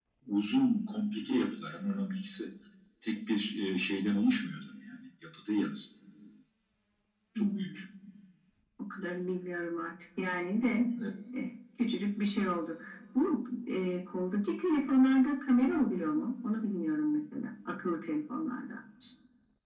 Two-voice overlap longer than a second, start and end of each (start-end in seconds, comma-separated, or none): none